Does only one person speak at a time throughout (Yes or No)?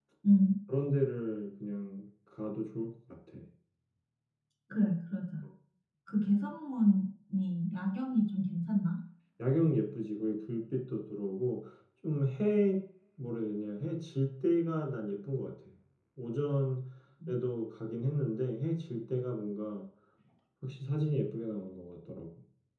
Yes